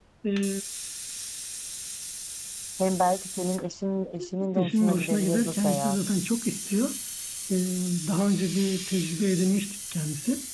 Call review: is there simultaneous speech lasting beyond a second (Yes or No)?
Yes